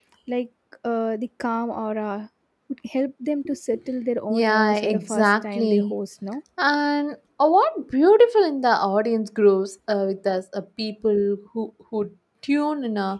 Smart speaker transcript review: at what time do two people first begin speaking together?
4.3 s

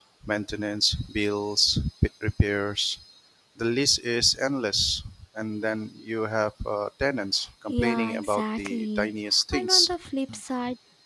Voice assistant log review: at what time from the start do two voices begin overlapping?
7.7 s

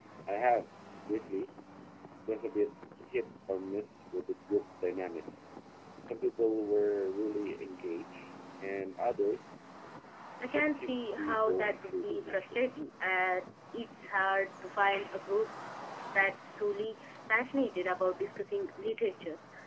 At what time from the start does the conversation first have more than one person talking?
10.5 s

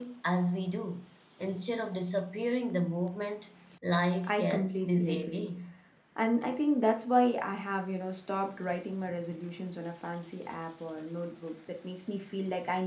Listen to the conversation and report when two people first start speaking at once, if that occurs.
4.2 s

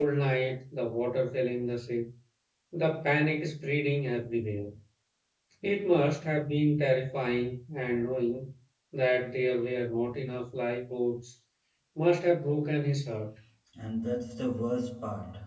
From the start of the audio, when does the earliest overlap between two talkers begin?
none

